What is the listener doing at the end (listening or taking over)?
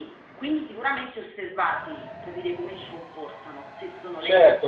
taking over